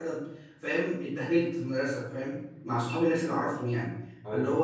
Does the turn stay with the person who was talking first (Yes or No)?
Yes